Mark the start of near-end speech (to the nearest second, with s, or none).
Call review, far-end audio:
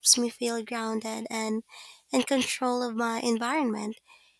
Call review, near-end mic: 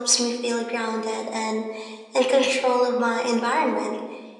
none